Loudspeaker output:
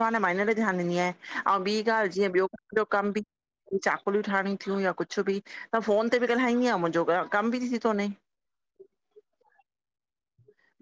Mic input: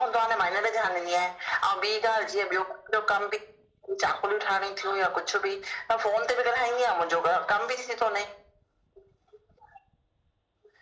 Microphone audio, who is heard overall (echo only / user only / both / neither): echo only